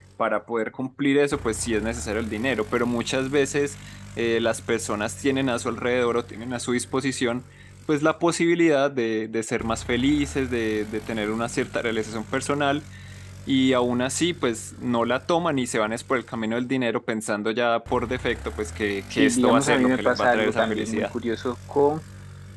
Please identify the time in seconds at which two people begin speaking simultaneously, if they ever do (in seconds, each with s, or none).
19.1 s